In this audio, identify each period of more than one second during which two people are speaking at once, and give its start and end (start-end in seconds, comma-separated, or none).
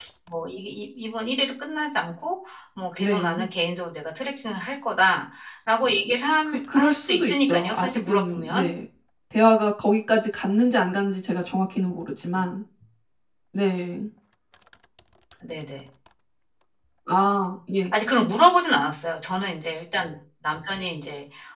6.5-8.6